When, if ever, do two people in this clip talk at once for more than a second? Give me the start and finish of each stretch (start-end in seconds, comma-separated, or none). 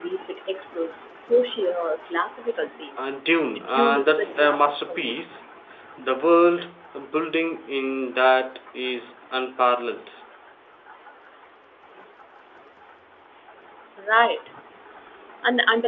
3.5-5.1